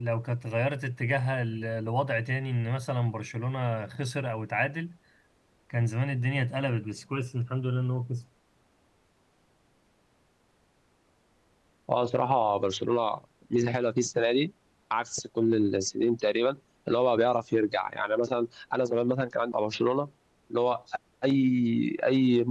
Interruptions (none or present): none